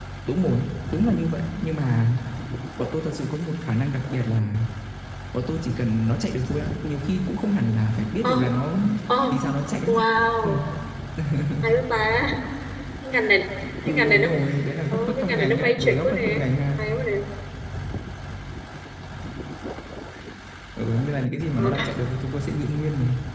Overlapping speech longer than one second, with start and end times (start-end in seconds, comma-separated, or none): 14.9-16.3